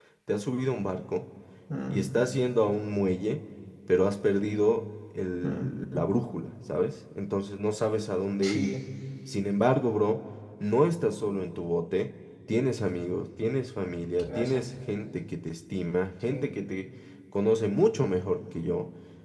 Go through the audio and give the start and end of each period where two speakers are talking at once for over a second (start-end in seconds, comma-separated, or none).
none